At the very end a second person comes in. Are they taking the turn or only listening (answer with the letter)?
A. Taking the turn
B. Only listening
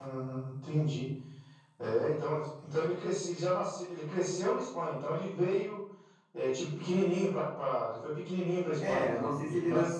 A